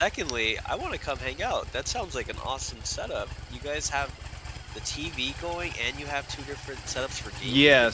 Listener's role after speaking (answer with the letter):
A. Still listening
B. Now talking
B